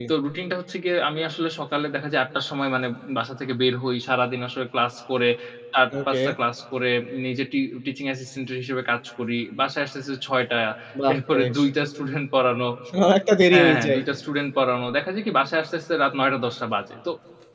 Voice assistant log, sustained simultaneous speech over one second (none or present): none